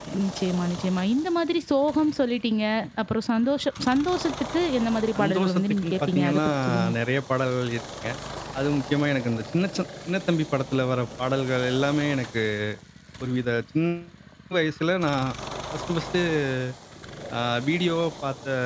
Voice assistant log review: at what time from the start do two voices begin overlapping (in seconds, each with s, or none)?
5.2 s